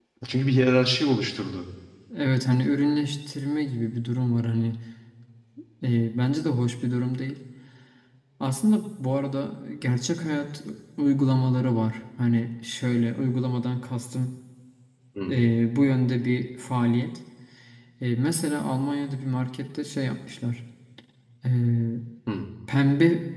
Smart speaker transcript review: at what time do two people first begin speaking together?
none

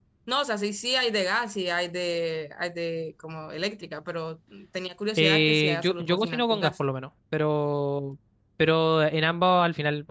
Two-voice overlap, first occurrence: 5.2 s

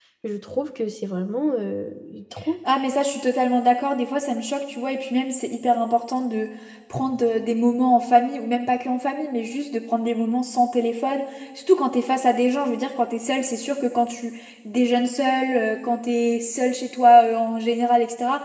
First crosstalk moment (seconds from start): none

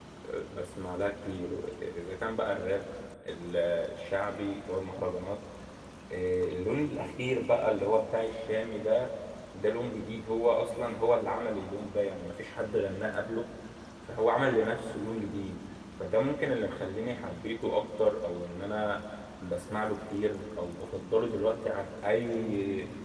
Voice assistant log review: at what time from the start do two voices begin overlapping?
none

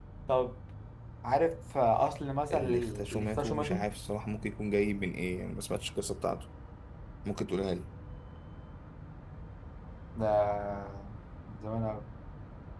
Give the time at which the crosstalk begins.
2.5 s

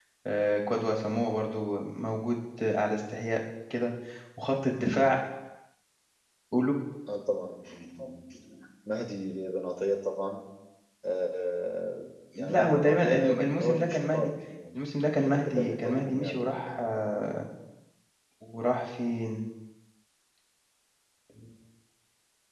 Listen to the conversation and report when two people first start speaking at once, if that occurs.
12.3 s

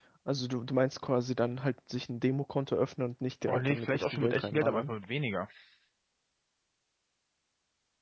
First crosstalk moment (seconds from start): 3.5 s

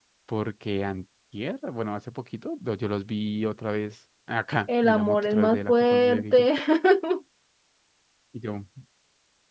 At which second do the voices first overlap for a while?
4.7 s

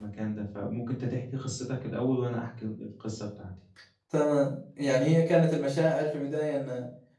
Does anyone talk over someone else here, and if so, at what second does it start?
none

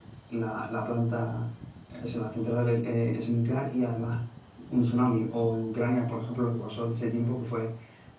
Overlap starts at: none

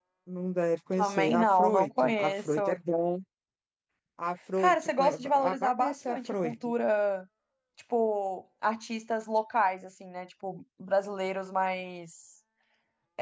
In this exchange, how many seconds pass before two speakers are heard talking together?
0.9 s

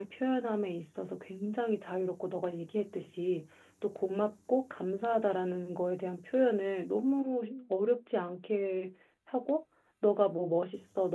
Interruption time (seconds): none

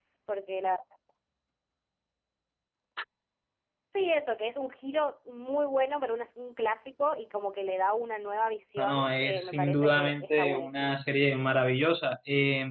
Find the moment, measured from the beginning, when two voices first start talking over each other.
8.8 s

